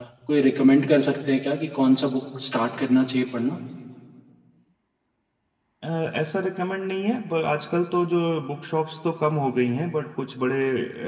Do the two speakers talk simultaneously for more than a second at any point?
No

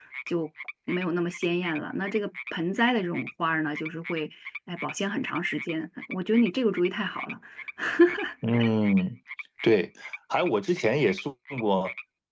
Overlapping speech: No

